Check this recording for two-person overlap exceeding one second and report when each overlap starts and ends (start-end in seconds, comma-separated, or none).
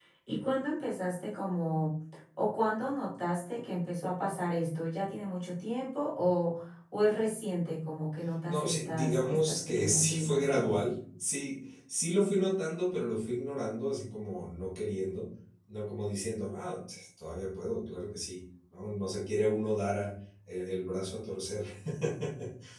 8.5-10.8